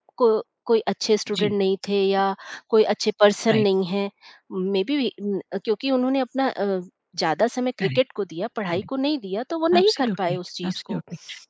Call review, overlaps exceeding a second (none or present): present